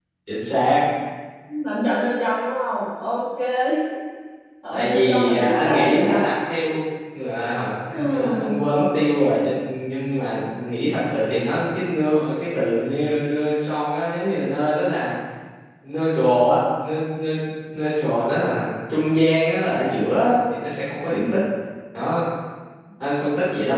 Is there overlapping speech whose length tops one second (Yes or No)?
Yes